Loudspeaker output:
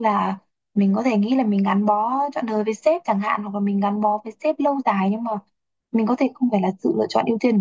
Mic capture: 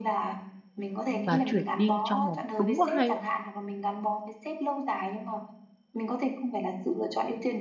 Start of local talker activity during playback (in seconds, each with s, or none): 1.2 s